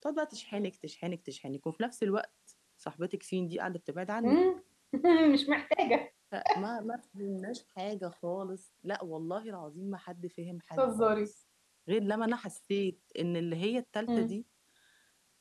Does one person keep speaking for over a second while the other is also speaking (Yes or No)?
No